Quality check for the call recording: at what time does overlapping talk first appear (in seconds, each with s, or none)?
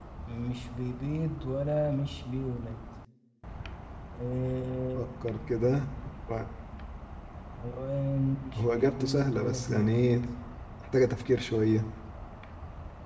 8.6 s